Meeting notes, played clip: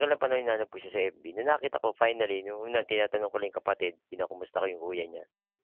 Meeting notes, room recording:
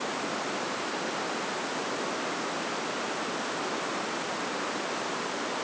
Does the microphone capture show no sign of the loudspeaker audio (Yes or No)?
Yes